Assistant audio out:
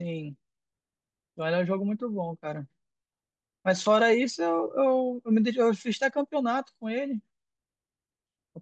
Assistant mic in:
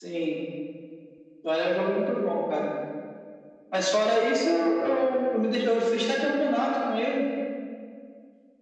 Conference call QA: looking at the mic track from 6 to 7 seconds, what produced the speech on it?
echo only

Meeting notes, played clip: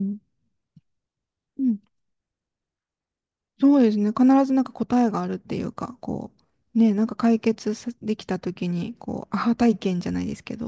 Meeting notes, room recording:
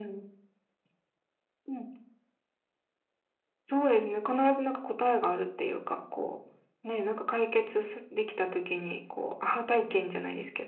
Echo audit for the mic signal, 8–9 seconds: echo only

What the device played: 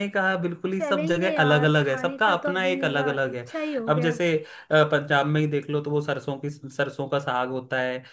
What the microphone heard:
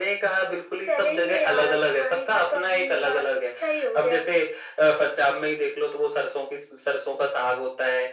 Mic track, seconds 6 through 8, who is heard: echo only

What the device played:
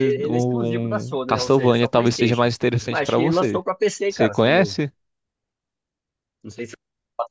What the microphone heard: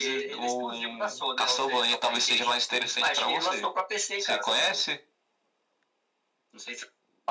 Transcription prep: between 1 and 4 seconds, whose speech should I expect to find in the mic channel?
echo only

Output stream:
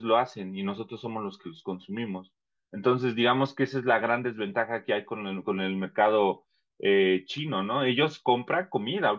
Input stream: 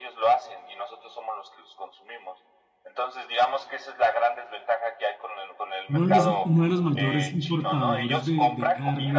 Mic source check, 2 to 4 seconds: echo only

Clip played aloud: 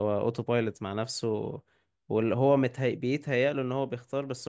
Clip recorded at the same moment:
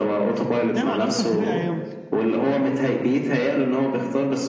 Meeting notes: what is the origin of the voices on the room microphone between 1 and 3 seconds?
both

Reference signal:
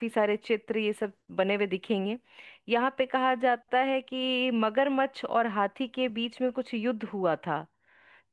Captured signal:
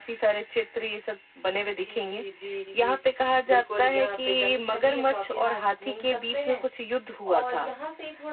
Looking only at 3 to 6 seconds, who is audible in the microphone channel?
both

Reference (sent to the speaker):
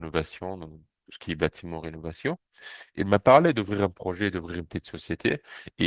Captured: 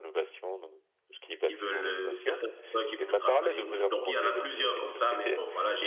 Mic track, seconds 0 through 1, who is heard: echo only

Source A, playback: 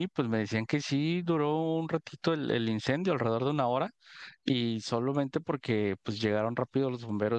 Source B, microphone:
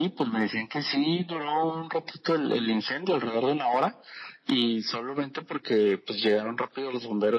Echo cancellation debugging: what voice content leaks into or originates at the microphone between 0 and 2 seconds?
echo only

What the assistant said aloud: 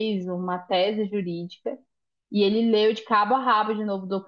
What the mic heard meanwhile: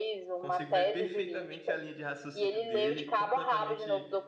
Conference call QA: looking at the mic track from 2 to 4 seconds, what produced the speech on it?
both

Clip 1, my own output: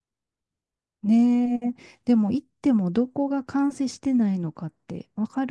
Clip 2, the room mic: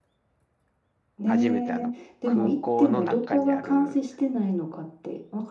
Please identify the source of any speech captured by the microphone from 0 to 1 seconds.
neither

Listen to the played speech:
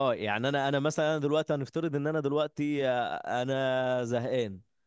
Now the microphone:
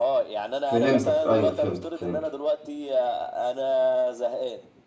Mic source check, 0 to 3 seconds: both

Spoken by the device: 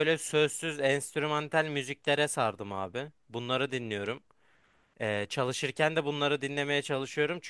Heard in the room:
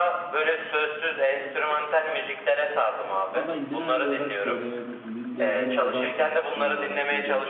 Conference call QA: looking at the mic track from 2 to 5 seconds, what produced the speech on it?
both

